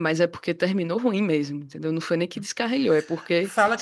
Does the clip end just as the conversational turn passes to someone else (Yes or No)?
Yes